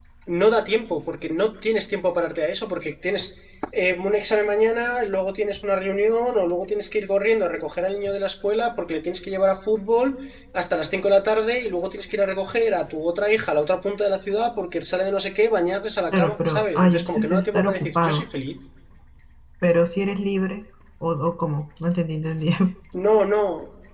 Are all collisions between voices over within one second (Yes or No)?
No